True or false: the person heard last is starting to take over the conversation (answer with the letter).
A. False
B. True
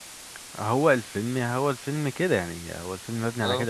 A